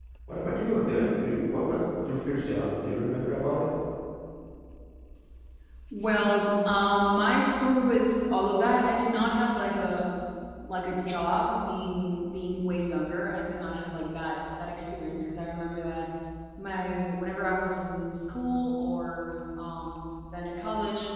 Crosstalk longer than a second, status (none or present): none